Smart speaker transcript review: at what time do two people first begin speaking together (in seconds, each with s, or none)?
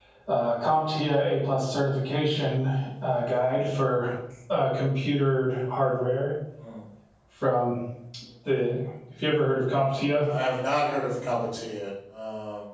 none